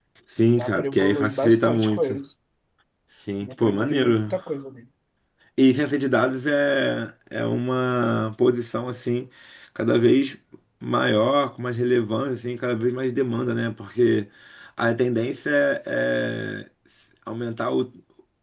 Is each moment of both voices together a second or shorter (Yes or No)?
No